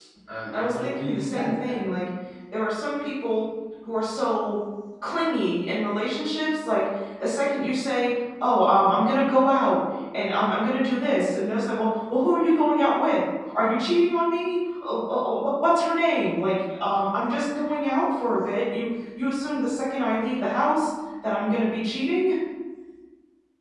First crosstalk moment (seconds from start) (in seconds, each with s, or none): 0.5 s